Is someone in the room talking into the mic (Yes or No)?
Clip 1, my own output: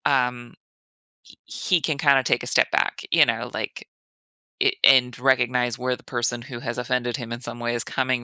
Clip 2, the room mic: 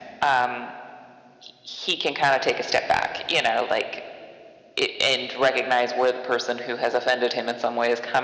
No